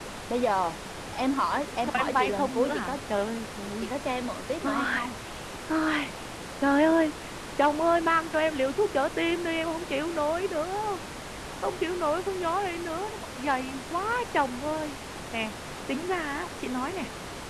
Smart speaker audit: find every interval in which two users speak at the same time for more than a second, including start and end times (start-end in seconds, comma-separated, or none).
1.7-3.0